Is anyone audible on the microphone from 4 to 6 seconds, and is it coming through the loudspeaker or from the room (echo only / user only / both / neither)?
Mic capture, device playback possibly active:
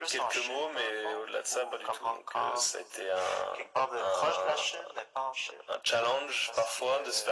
echo only